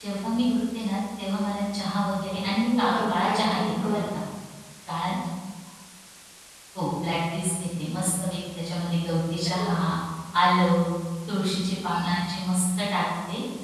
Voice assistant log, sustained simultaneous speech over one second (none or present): present